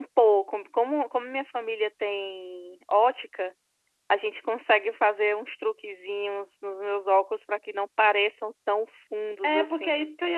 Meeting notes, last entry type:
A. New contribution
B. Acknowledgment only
A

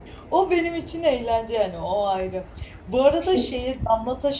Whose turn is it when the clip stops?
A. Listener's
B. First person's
B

